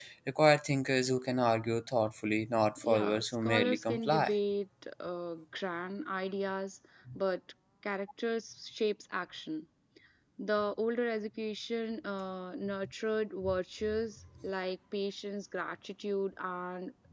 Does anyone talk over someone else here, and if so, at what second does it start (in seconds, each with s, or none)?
2.8 s